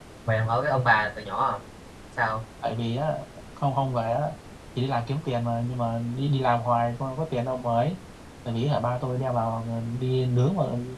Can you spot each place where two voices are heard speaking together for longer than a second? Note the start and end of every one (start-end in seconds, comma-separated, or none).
none